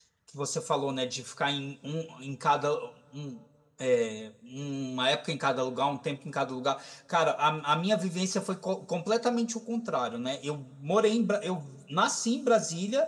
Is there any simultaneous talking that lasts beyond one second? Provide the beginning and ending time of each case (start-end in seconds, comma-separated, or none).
none